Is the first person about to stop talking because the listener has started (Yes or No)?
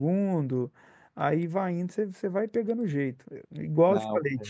No